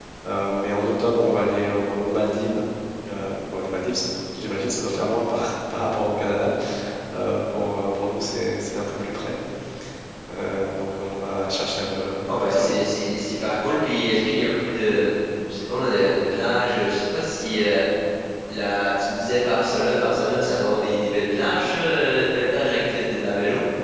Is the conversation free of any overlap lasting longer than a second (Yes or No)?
Yes